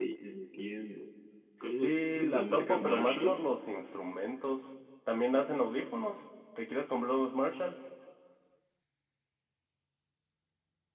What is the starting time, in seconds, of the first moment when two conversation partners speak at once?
1.6 s

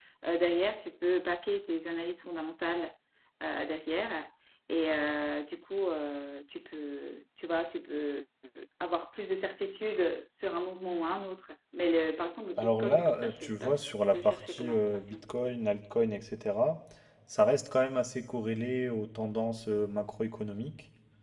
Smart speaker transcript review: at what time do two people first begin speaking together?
12.6 s

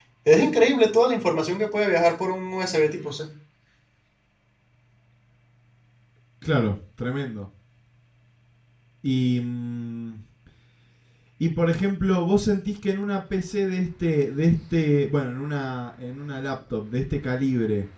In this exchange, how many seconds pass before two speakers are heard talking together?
none

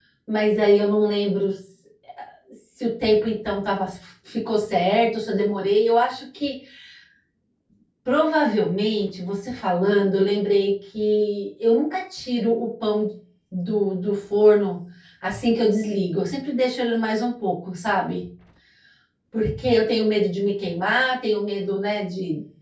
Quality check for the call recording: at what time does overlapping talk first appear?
none

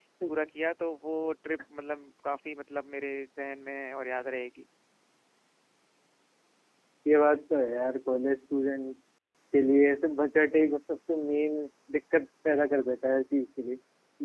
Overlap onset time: none

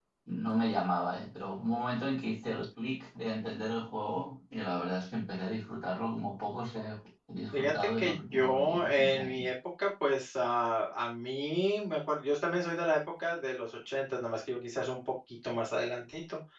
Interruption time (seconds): 7.5 s

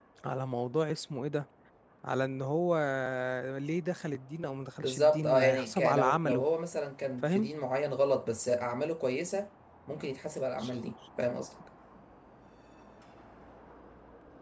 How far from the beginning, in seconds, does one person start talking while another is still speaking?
4.8 s

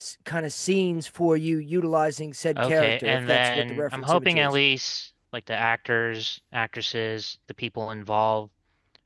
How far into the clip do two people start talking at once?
2.6 s

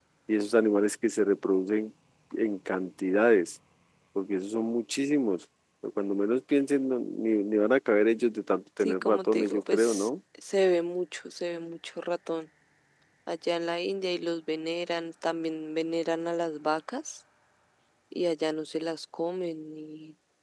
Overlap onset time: 8.8 s

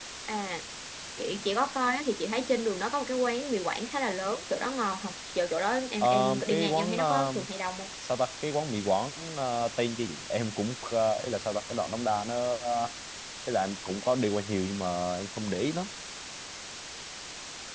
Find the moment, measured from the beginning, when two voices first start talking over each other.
6.0 s

